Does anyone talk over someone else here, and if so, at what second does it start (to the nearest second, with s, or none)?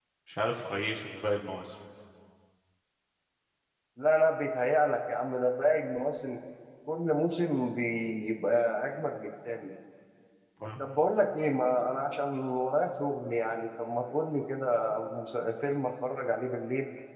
none